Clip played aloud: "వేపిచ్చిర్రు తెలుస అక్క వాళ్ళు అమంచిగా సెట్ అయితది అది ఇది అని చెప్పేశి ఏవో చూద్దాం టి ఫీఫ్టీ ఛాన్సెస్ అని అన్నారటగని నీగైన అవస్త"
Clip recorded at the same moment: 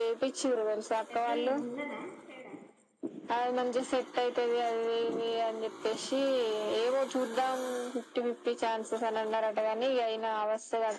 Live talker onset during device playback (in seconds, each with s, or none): 1.1 s